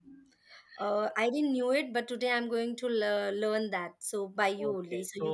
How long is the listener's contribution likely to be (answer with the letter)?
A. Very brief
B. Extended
B